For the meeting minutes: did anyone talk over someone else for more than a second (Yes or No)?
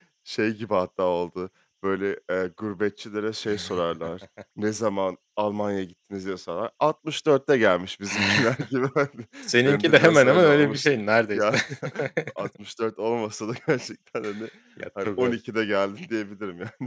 Yes